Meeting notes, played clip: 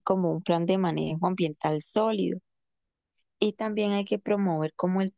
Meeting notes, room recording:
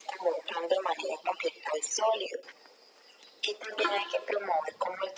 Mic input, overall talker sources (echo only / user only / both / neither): echo only